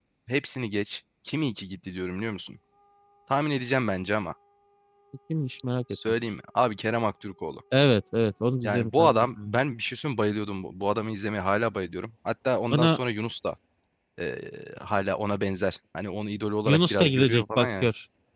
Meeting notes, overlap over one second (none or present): present